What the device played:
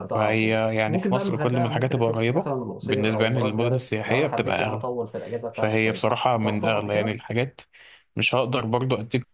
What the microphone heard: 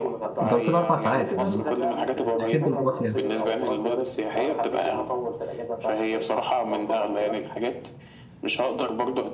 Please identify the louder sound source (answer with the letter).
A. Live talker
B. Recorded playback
A